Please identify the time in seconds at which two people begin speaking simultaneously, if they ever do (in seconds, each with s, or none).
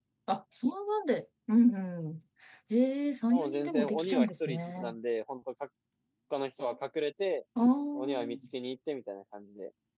3.3 s